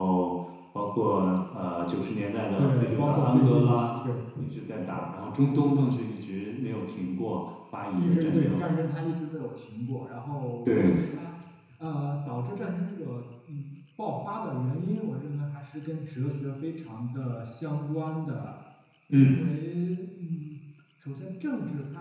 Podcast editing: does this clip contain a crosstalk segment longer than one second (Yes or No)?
Yes